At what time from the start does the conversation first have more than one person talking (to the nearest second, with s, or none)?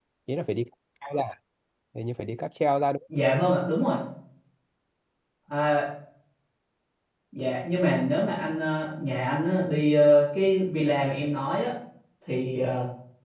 none